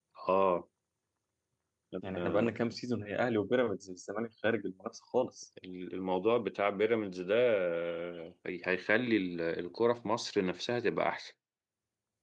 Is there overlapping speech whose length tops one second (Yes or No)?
No